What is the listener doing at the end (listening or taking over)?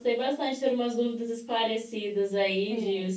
taking over